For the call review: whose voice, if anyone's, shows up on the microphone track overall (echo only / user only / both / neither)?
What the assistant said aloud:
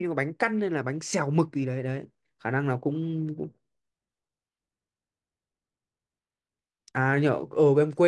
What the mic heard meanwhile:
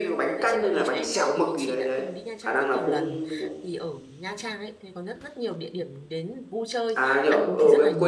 both